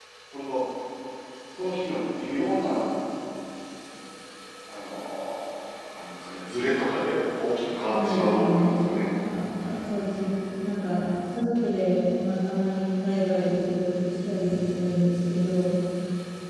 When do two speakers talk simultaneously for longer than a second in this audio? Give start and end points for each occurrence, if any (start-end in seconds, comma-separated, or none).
7.9-9.1